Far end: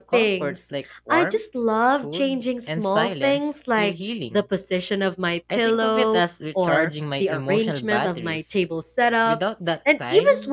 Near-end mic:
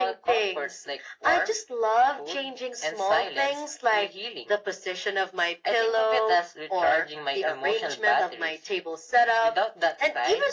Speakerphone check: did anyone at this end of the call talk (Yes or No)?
No